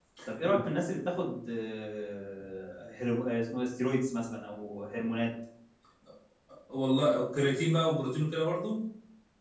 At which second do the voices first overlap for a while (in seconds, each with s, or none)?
none